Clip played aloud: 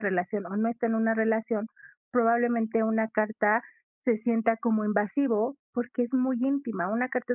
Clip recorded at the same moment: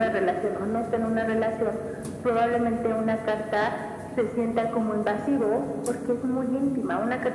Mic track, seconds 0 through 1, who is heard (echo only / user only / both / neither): echo only